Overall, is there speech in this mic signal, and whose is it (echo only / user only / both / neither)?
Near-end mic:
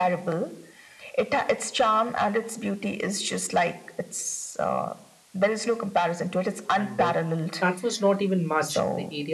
both